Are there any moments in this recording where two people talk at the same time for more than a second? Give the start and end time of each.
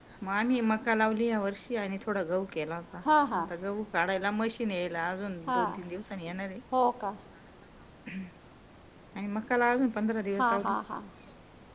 none

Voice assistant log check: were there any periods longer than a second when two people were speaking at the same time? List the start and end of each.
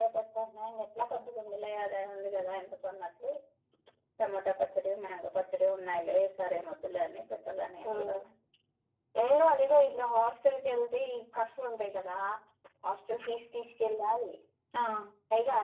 none

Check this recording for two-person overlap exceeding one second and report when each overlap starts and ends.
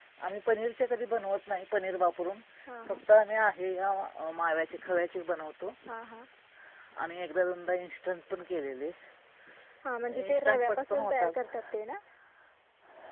10.3-11.5

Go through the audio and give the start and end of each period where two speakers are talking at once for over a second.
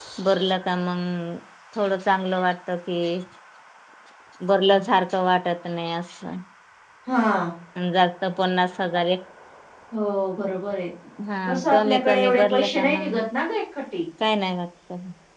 11.5-13.2

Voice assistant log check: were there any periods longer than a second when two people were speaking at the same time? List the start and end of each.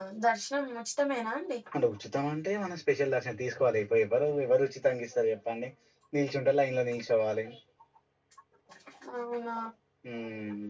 none

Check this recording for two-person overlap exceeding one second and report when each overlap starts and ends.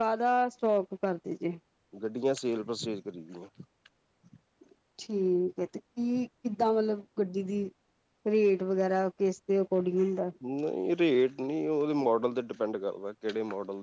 none

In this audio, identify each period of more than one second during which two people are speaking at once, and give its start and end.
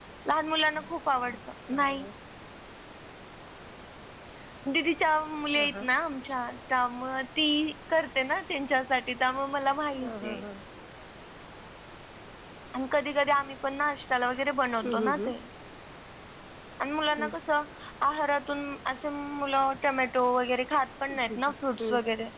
none

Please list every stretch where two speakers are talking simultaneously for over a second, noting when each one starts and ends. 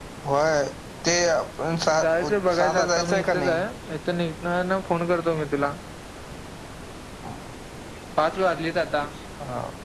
2.0-3.6

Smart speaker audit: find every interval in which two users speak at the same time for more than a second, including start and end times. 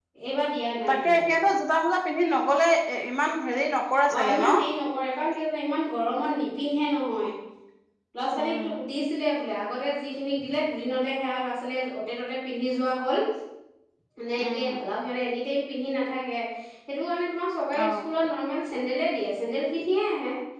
none

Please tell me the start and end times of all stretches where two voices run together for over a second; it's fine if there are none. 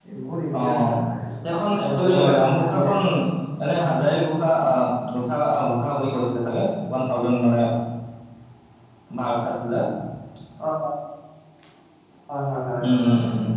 1.4-3.0

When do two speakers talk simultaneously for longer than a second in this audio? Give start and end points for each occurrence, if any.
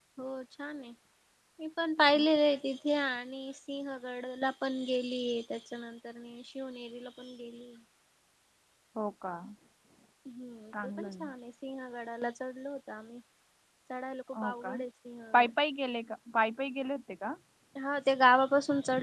none

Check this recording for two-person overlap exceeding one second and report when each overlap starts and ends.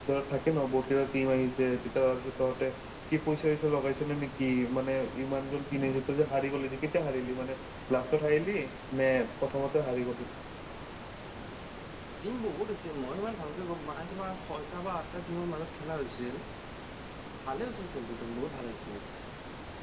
none

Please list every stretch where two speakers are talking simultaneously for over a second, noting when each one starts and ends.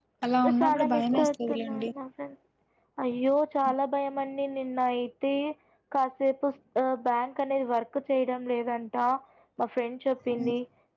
0.6-1.9

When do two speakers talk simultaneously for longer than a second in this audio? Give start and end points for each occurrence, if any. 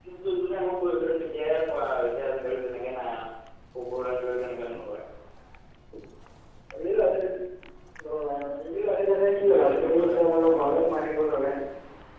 9.4-10.8

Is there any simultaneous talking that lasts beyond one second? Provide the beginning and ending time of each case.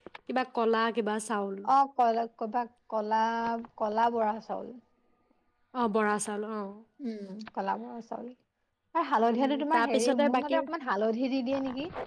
9.4-10.6

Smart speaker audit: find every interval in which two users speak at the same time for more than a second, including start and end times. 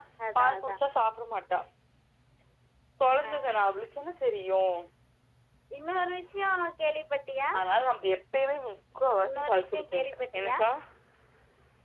9.2-10.6

